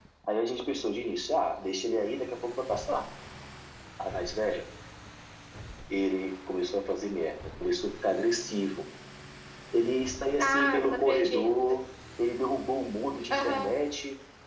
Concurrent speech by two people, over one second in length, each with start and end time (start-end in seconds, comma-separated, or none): 10.4-11.8